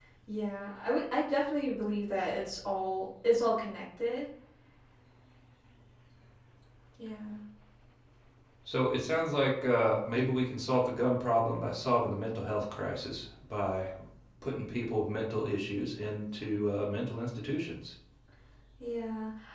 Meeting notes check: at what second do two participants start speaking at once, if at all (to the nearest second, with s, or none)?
none